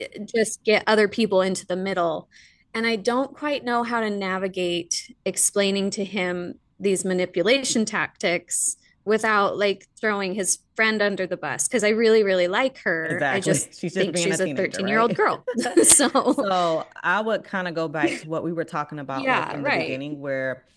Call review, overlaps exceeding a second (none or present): present